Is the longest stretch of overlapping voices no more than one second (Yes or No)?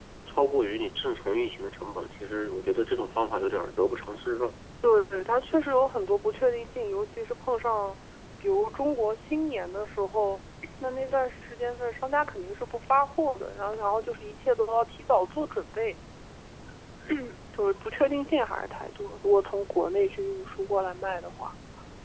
Yes